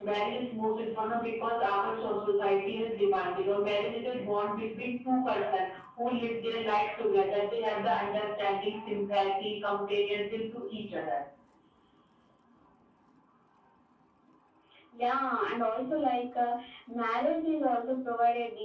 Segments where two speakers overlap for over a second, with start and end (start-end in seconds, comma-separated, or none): none